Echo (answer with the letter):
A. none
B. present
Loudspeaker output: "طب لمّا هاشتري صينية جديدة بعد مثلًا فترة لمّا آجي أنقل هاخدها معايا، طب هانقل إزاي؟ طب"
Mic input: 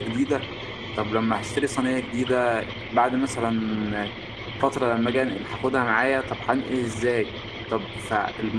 B